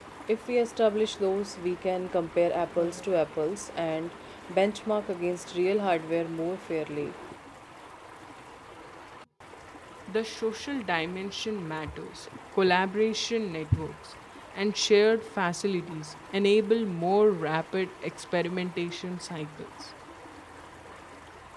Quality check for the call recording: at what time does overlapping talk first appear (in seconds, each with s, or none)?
none